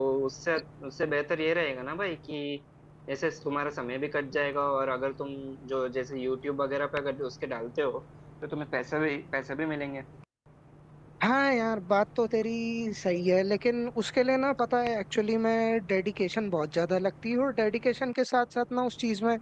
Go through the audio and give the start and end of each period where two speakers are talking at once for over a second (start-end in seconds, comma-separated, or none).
none